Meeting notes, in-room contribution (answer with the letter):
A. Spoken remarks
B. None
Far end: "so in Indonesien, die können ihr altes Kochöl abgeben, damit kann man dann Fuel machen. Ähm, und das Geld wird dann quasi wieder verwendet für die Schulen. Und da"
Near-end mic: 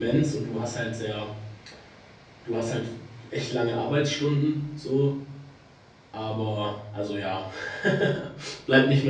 A